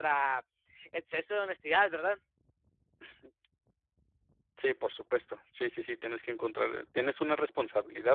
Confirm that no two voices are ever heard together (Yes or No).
Yes